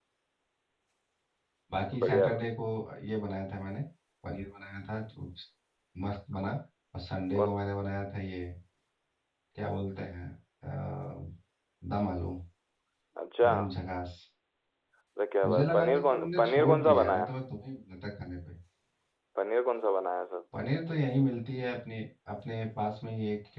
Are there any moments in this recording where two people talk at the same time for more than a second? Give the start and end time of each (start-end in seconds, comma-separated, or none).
15.4-17.3